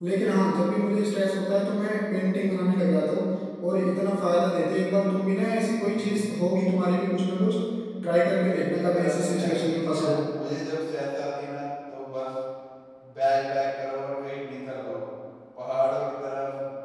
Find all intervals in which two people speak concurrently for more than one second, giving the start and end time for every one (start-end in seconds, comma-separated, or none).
8.5-10.1